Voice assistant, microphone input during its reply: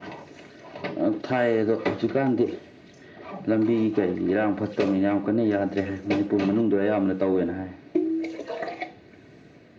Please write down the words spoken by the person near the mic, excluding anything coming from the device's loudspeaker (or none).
none